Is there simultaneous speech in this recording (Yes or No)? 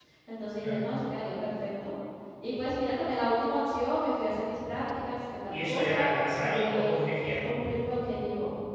Yes